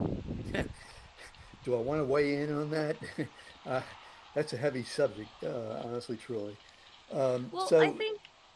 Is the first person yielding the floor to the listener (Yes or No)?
Yes